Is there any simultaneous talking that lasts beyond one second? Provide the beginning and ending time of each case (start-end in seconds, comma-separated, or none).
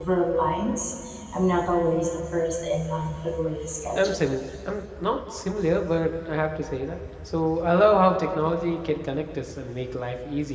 none